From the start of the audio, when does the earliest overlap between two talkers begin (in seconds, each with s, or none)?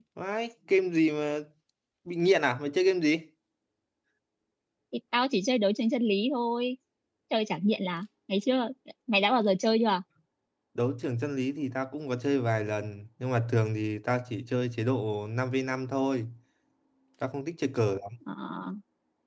none